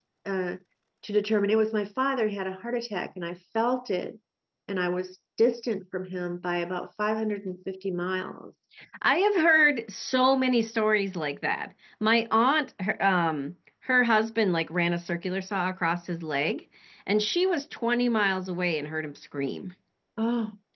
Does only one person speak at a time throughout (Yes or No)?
Yes